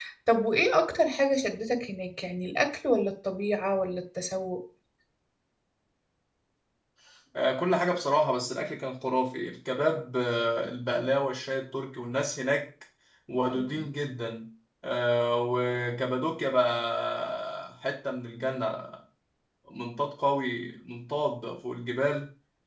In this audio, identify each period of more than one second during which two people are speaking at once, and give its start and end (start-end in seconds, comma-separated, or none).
none